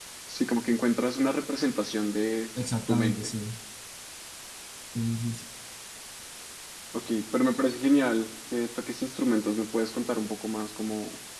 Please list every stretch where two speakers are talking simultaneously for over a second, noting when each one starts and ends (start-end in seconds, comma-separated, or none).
none